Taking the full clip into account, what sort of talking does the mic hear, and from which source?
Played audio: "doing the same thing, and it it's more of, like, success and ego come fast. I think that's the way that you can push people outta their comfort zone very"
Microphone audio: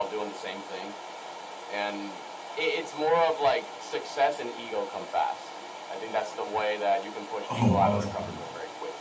both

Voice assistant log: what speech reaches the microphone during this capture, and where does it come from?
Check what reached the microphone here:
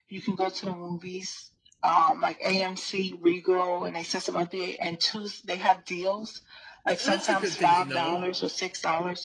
both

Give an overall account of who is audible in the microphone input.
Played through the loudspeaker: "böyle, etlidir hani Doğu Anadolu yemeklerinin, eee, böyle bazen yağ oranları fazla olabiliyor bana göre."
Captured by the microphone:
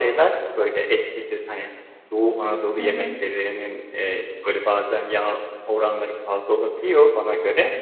both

